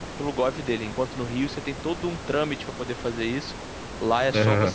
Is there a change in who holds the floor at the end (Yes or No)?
No